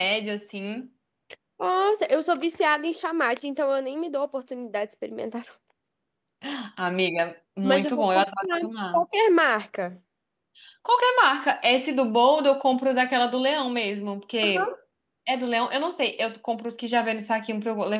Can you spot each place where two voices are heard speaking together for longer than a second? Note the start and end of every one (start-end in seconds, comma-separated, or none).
7.6-9.0